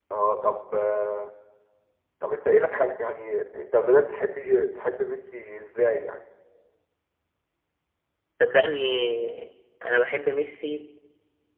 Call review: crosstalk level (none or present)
none